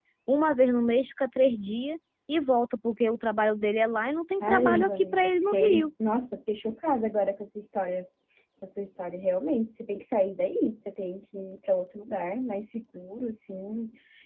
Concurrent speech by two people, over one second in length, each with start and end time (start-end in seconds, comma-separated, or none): 4.4-5.9